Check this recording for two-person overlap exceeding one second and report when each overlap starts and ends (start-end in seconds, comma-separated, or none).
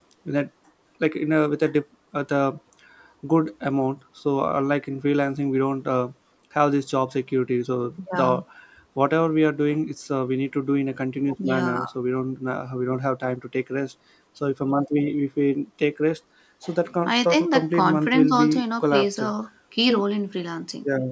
17.1-19.2